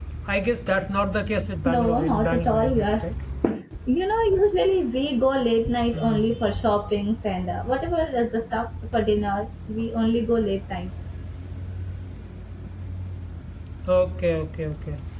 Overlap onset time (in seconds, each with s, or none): 1.6 s